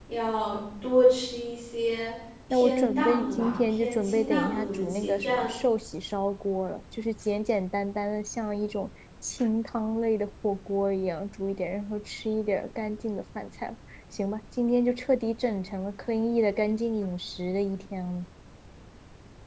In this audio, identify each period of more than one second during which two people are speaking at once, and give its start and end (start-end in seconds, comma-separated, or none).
2.5-5.5